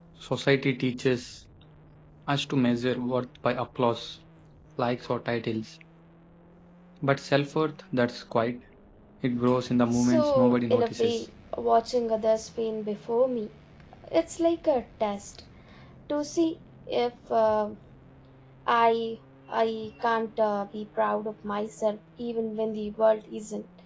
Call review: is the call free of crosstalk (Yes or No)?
No